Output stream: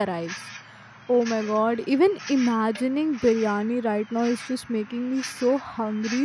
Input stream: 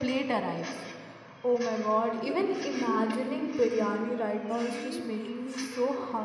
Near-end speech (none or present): present